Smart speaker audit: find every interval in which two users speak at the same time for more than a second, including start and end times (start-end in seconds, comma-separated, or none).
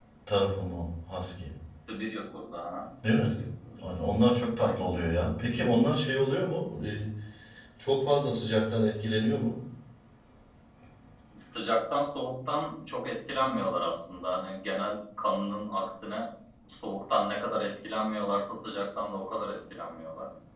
none